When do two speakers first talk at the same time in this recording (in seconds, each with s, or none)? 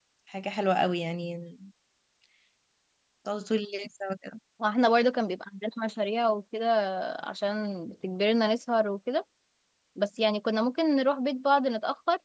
none